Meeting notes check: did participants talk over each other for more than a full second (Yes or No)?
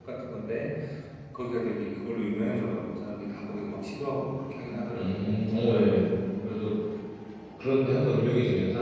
No